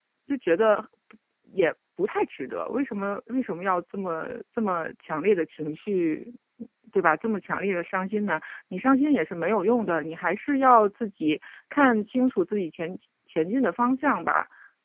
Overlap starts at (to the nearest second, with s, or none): none